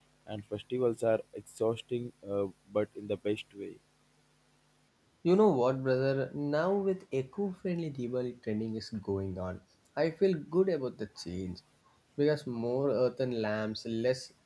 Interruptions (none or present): none